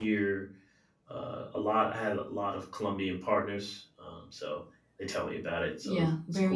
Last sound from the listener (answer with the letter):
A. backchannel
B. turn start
B